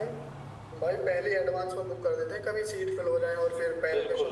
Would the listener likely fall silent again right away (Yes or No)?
No